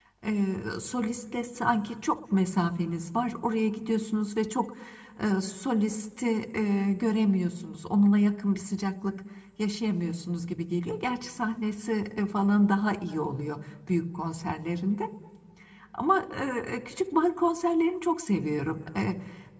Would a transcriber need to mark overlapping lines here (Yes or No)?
No